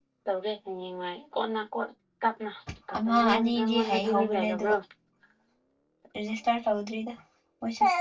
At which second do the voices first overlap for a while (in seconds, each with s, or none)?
3.0 s